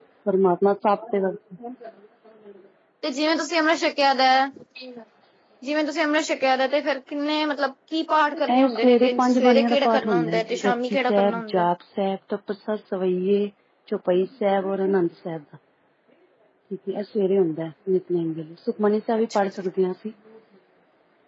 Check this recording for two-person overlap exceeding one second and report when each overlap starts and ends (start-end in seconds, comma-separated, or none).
8.6-11.7